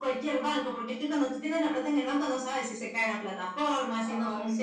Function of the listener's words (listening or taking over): listening